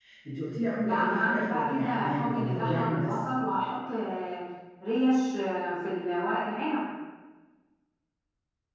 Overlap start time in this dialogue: 0.8 s

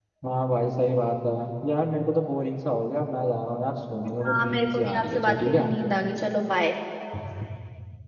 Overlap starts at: 4.2 s

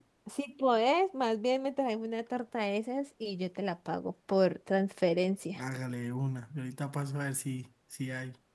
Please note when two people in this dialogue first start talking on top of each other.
none

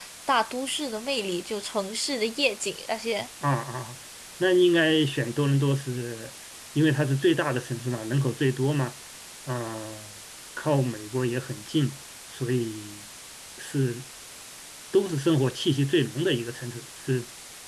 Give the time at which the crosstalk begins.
none

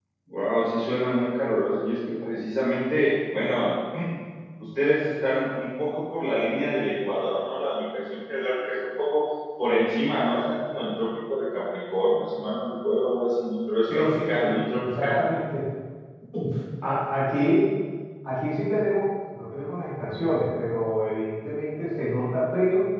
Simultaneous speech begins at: 13.9 s

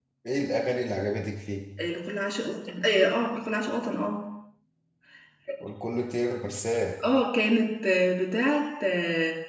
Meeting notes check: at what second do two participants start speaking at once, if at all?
none

